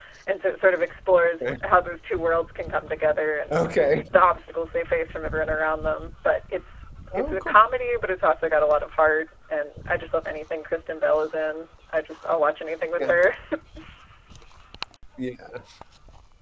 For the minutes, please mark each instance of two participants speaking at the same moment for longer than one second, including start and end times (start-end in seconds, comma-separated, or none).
none